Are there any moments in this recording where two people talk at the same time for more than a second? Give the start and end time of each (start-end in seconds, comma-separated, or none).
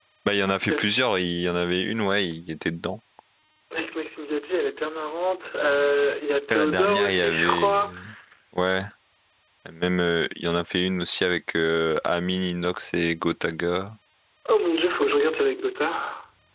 6.5-7.8